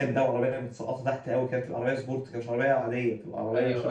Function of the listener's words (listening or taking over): taking over